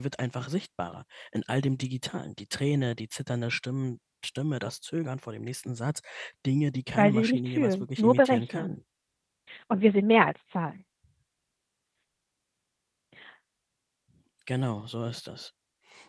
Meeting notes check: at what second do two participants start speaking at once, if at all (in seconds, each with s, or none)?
7.0 s